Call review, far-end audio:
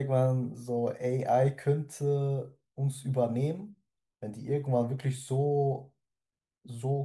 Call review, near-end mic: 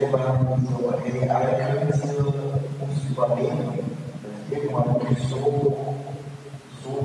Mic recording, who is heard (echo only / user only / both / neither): echo only